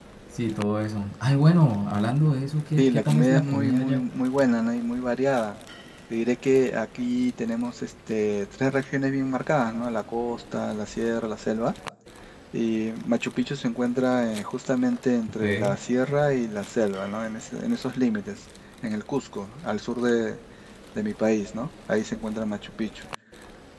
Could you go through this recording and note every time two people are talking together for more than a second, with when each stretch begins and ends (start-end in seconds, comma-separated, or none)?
2.8-4.1